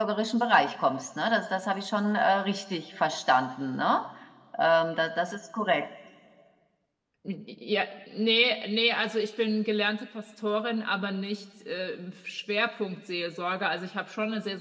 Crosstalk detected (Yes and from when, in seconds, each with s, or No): No